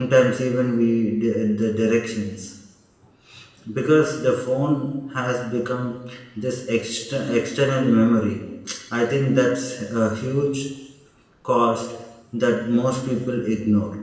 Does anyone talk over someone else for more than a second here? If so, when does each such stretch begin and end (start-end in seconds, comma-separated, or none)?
none